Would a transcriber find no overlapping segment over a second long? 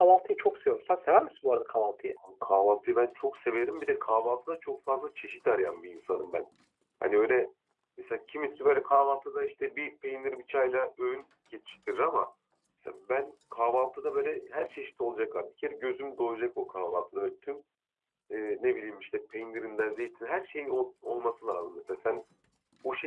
Yes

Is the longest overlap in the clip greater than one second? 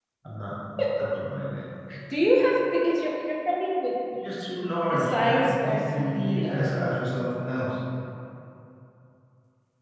Yes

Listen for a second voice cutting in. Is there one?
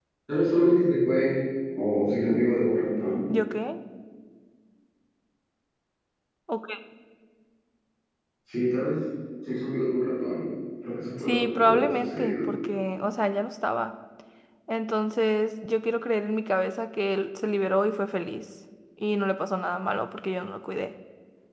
Yes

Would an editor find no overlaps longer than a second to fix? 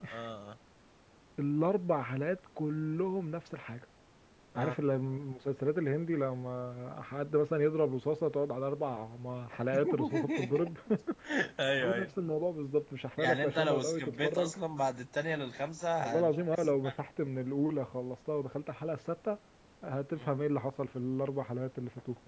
No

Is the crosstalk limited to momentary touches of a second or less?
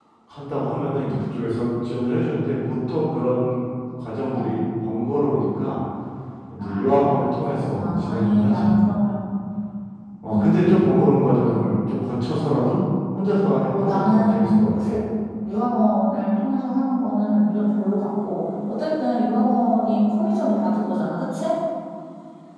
No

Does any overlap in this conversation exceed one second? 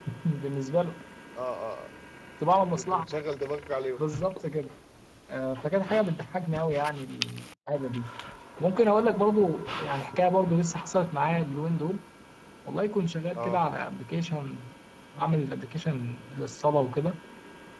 No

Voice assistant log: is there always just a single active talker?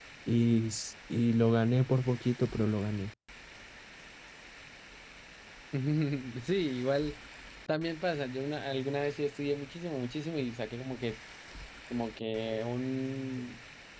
Yes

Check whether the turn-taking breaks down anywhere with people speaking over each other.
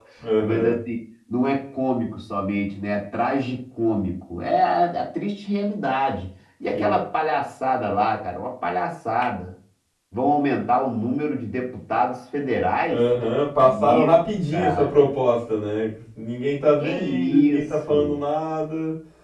Yes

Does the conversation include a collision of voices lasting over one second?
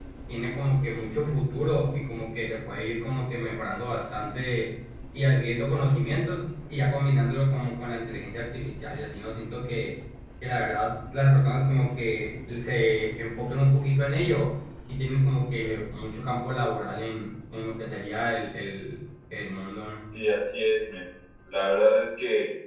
No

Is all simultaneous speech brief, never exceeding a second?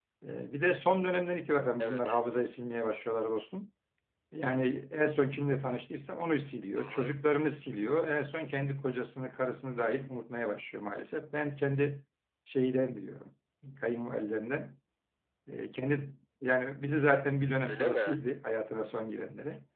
Yes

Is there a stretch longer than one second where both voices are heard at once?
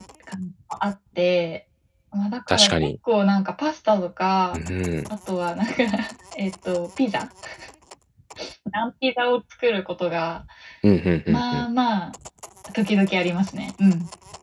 No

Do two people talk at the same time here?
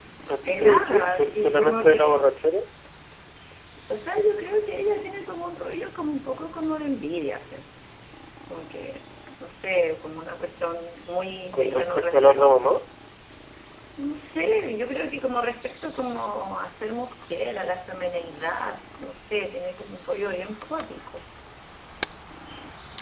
Yes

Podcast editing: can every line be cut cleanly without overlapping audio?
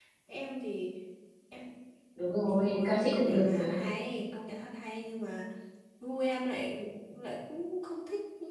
No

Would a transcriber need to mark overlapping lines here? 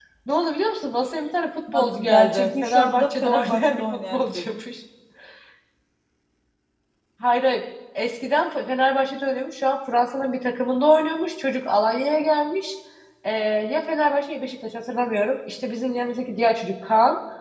Yes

